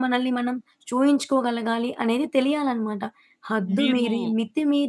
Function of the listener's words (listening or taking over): listening